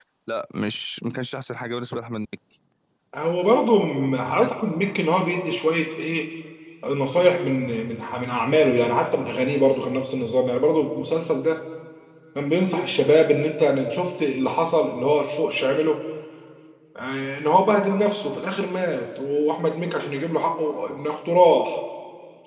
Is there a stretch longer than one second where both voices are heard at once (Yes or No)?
No